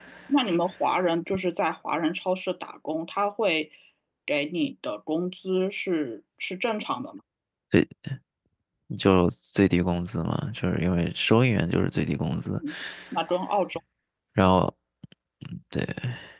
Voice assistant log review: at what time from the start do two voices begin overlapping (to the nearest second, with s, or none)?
none